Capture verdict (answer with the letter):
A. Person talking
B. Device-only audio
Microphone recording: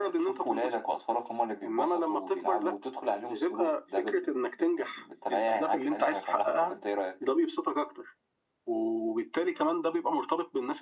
B